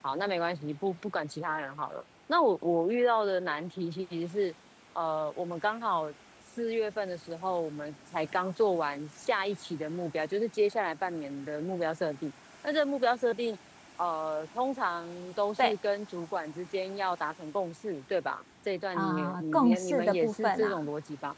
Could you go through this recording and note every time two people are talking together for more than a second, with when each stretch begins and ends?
19.0-20.8

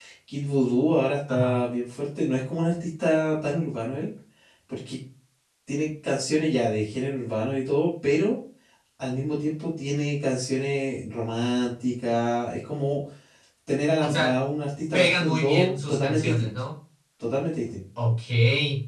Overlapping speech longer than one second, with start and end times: 14.9-16.5

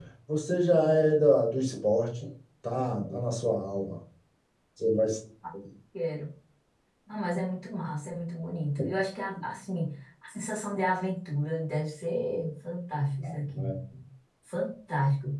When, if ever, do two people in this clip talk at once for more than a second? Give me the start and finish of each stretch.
none

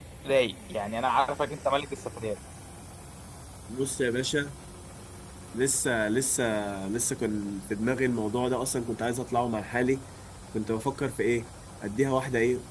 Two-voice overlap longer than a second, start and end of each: none

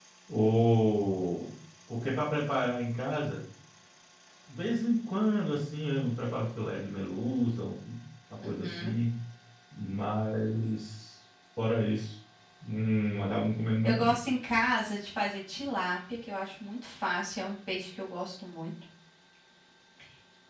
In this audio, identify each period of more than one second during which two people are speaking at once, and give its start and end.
none

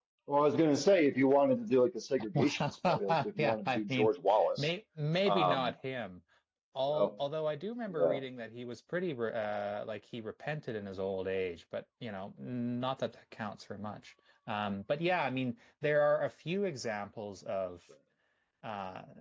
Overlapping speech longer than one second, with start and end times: 2.3-4.1

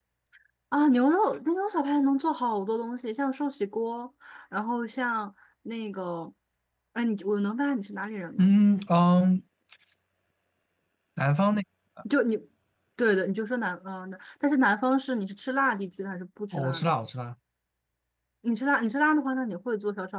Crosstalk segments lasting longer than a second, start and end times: none

